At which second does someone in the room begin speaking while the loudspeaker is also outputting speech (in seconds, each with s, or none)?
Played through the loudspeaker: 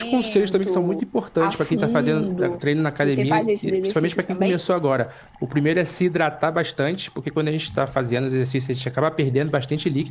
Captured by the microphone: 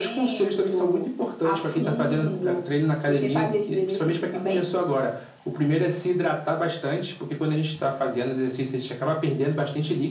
none